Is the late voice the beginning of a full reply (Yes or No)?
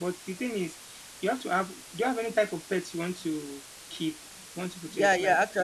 Yes